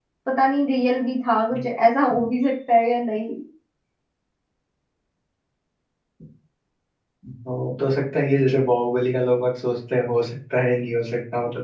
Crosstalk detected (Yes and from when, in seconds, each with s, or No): No